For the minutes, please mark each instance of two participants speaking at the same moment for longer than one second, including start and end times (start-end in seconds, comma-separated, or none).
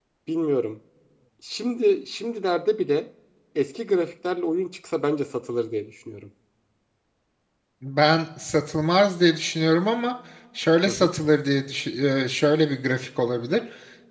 none